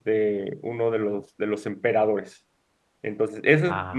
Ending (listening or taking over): listening